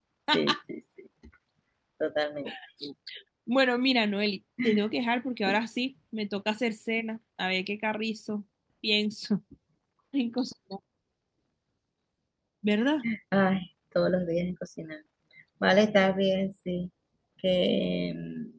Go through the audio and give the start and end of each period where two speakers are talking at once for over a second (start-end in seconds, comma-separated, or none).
none